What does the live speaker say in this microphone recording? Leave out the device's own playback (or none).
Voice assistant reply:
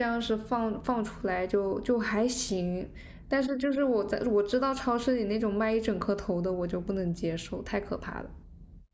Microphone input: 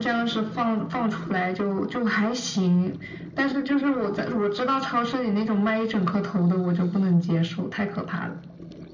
none